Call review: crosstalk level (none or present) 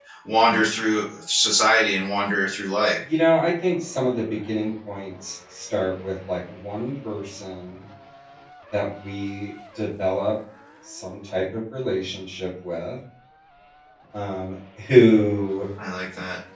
none